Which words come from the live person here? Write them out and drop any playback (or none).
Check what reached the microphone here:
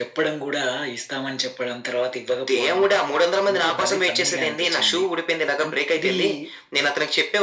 none